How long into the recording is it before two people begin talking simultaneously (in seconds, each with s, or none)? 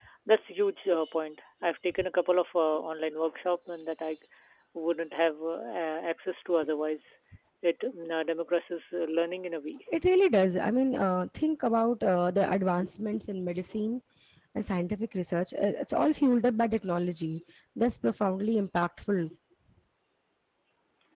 none